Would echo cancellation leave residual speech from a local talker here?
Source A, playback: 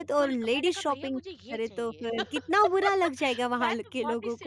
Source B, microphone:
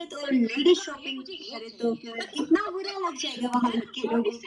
No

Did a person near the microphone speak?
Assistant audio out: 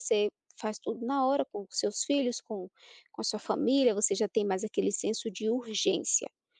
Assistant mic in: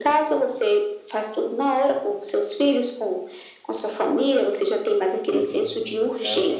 Yes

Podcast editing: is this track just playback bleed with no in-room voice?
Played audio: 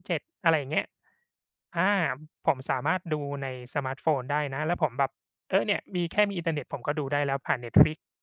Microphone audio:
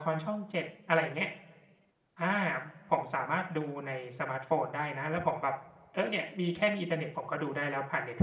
Yes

